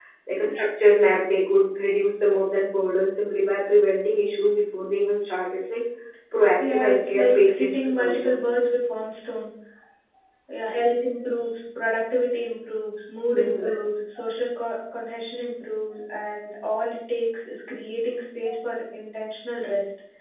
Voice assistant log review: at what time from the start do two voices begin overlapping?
6.7 s

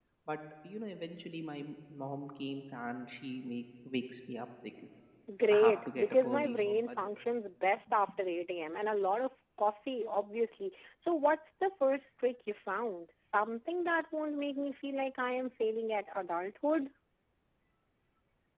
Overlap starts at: 5.5 s

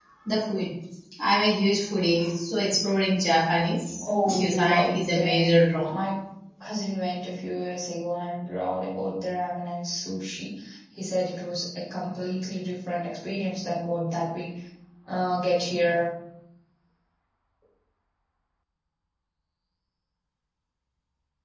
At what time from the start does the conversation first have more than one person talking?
4.0 s

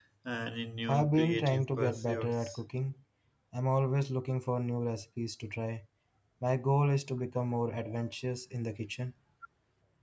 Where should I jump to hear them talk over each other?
0.9 s

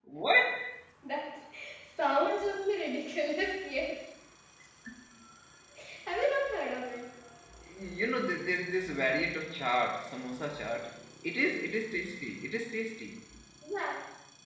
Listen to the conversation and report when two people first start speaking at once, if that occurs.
none

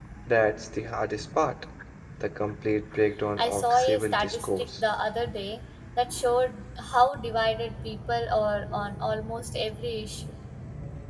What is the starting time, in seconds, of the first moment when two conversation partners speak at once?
3.4 s

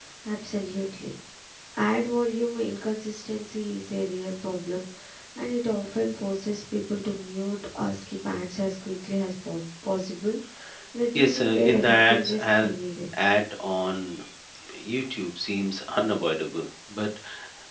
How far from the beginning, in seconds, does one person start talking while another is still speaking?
11.2 s

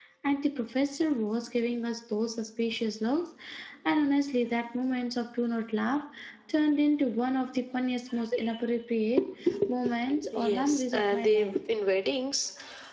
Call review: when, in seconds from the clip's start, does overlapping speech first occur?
10.3 s

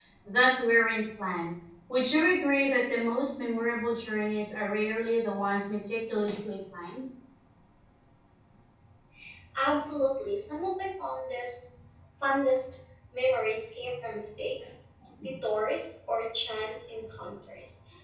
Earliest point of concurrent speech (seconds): none

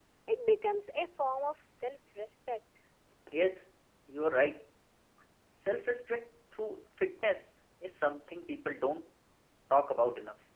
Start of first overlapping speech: none

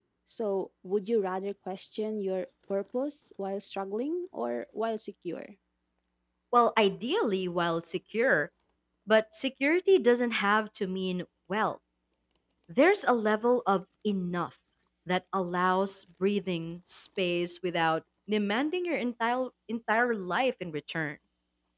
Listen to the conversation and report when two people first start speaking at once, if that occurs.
none

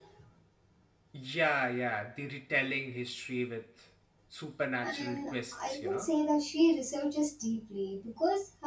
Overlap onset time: 4.8 s

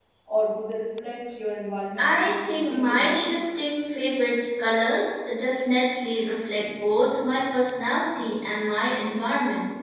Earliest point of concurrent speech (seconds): 2.0 s

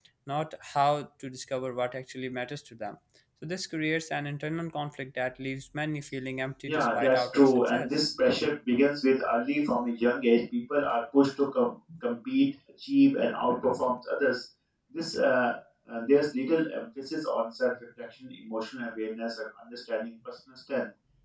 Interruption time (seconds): 6.7 s

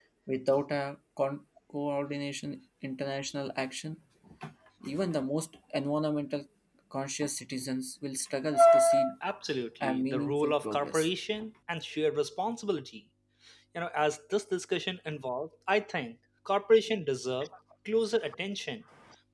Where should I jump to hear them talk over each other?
9.8 s

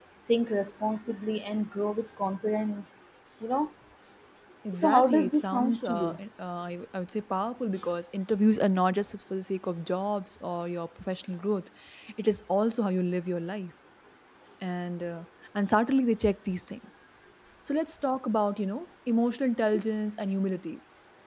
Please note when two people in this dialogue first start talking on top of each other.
4.8 s

